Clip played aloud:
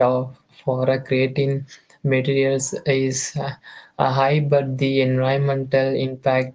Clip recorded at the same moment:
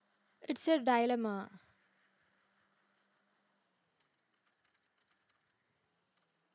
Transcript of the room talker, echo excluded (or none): It's a dilemma.